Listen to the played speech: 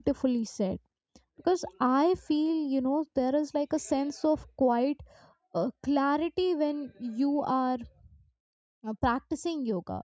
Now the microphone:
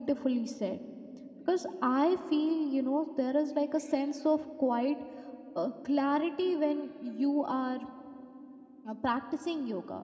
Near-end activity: none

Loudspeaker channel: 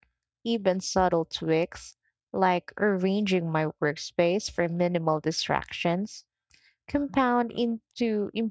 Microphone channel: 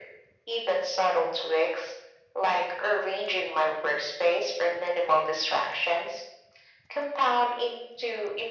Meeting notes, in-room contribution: none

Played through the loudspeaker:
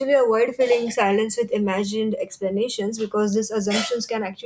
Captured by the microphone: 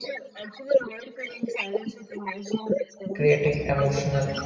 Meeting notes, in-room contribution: present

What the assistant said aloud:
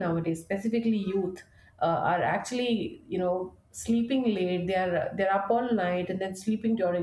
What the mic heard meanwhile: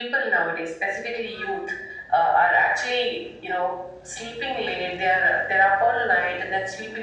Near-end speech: none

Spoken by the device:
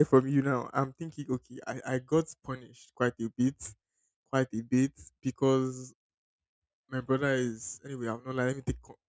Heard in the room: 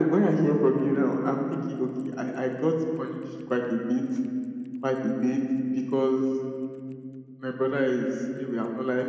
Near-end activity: none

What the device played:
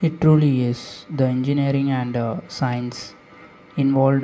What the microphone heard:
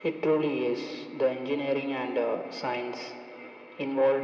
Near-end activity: none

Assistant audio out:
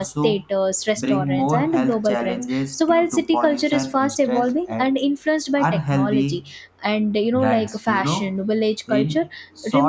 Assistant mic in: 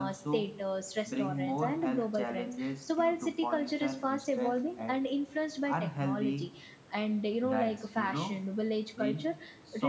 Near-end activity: none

